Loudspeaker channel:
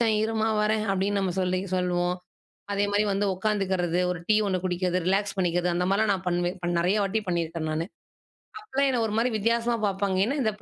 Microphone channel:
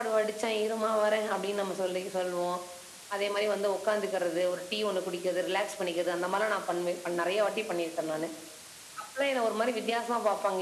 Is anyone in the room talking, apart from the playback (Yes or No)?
No